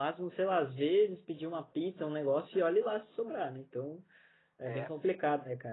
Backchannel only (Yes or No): Yes